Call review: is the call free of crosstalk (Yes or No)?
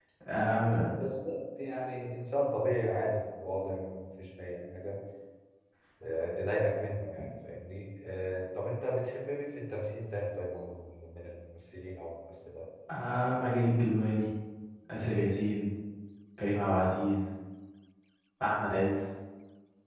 Yes